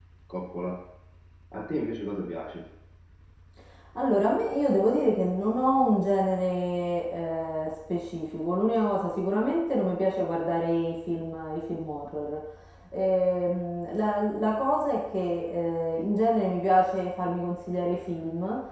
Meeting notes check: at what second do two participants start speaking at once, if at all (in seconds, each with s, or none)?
none